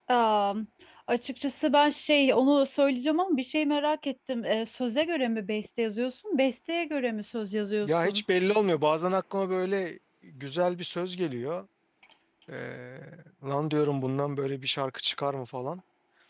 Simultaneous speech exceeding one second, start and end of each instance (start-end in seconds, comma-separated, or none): none